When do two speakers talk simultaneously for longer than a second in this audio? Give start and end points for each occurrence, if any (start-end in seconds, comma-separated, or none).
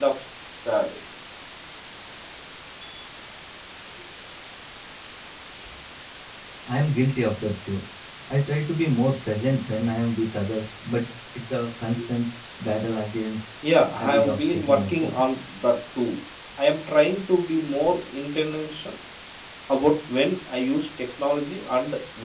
14.0-15.2